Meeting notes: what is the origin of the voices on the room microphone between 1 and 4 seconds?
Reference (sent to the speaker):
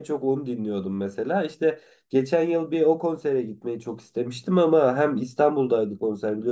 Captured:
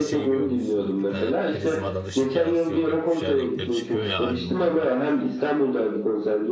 both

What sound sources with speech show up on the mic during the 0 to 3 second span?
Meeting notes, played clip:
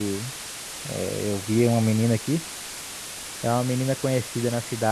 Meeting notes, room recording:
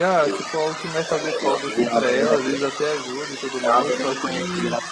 both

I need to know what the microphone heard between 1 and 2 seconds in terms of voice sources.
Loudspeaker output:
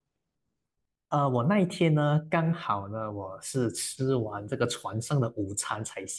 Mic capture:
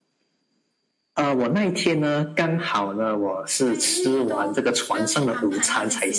echo only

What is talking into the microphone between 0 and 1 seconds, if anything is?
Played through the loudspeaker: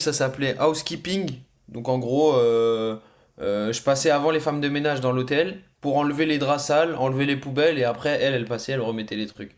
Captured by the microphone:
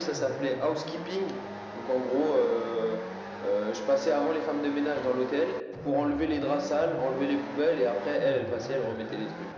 echo only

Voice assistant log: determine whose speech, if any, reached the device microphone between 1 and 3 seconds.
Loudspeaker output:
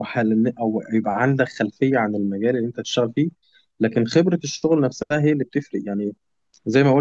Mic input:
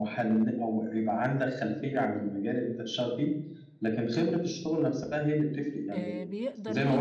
echo only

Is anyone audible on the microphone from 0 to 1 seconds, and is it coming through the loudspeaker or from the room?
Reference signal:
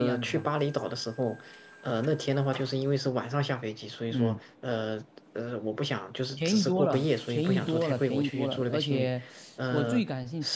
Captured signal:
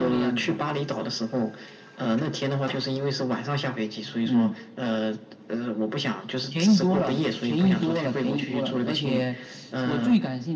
echo only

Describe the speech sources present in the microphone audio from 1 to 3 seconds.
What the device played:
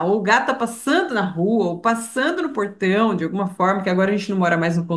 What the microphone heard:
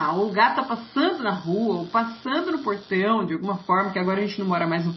echo only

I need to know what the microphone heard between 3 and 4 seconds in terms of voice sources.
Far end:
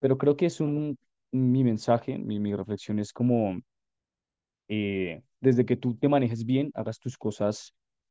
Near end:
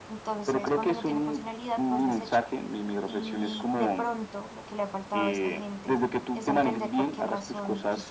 both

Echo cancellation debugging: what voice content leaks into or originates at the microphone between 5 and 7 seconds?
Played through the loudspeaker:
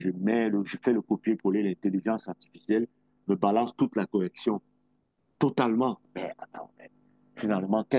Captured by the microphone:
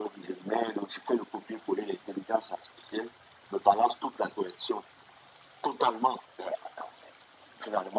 echo only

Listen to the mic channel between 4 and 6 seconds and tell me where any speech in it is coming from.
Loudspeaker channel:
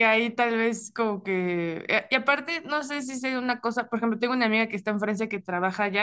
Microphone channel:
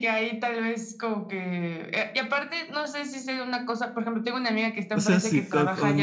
both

